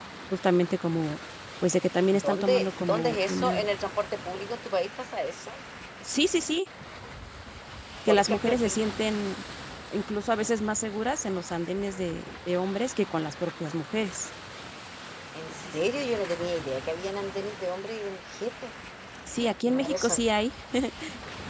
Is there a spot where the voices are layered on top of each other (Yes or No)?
Yes